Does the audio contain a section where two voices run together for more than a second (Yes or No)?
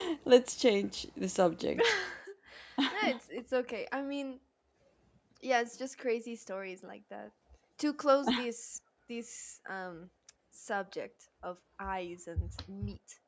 No